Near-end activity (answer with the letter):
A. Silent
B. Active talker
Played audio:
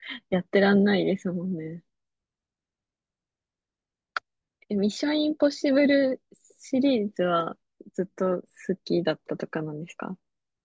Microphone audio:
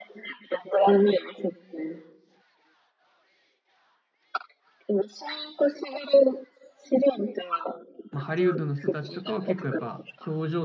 B